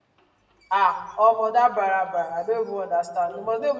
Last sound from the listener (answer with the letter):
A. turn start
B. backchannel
B